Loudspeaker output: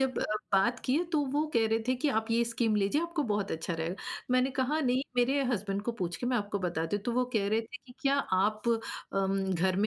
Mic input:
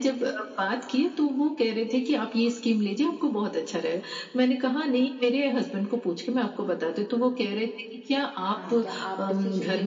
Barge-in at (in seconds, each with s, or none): 8.4 s